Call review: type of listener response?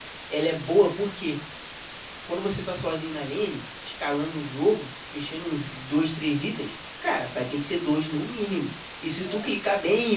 listening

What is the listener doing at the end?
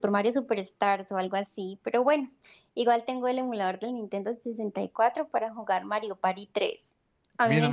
taking over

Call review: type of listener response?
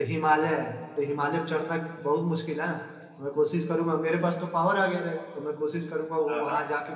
listening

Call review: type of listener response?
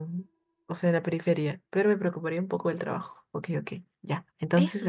taking over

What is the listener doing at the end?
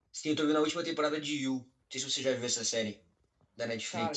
taking over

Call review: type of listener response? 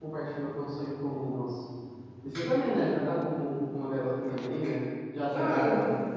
taking over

